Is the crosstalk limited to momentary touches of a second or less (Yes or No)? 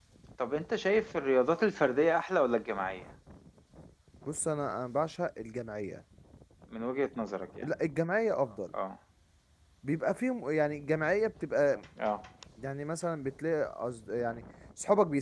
Yes